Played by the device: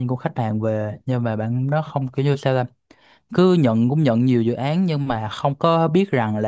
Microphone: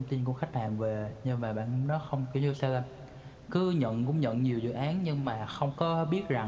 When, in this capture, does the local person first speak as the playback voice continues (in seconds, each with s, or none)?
none